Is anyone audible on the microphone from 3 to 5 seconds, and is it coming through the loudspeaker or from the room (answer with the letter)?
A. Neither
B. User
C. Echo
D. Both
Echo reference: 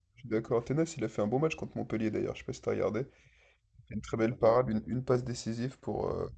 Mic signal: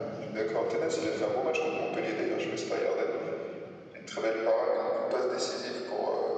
C